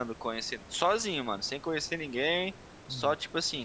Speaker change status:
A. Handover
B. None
B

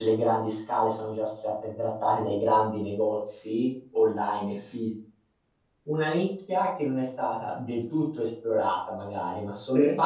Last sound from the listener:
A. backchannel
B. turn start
A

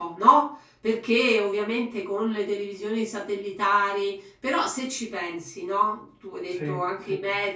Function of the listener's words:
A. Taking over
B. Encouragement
B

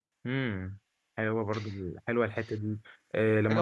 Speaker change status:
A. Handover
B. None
B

